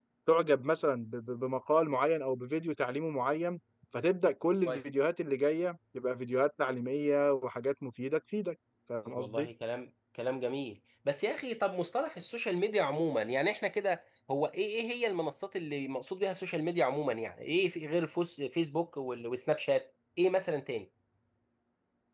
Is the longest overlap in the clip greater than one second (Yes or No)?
No